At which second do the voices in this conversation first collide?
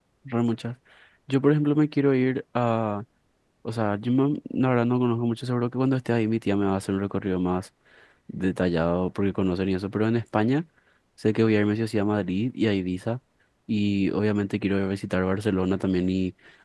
none

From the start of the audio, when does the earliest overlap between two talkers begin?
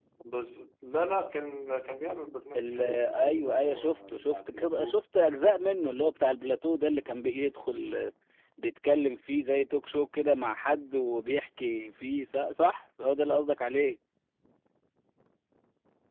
2.5 s

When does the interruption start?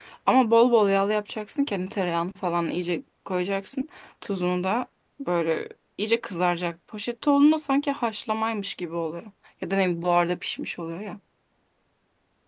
none

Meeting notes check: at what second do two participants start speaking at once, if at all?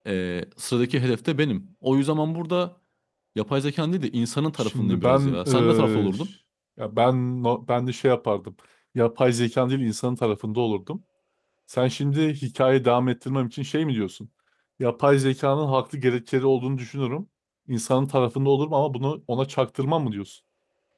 4.6 s

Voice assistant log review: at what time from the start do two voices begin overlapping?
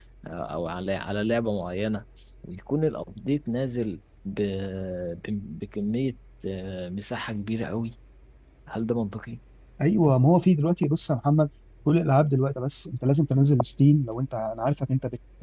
none

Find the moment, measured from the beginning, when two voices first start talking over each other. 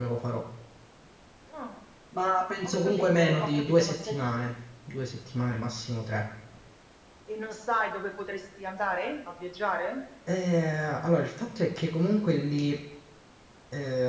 2.6 s

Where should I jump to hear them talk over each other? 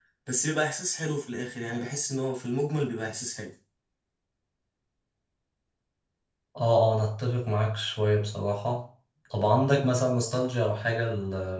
none

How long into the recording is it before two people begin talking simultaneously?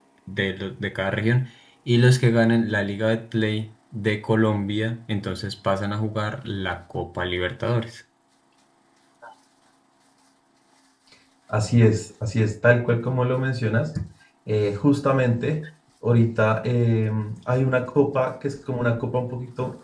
none

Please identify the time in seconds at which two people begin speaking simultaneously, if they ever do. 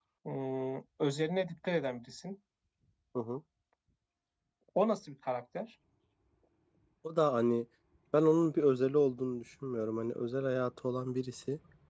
none

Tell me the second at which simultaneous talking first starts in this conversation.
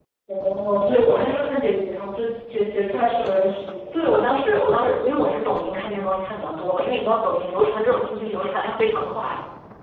none

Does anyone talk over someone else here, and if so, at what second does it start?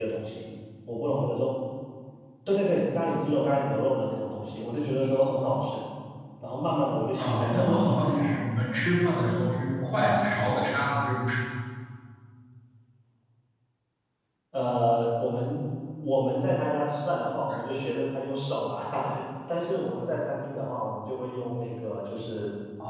7.2 s

